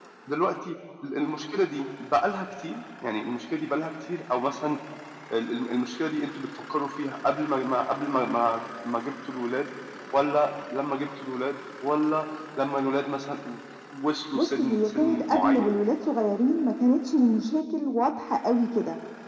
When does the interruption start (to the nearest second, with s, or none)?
14 s